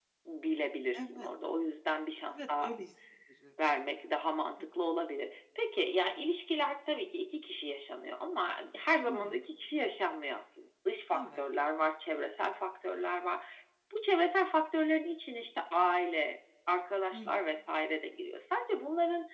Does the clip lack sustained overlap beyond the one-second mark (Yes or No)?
Yes